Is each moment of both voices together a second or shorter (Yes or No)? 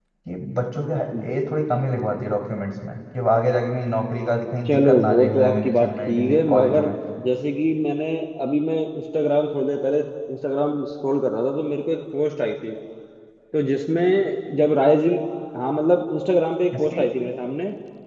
No